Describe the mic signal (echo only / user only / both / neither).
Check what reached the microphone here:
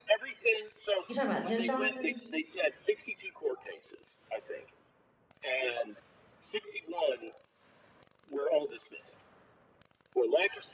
both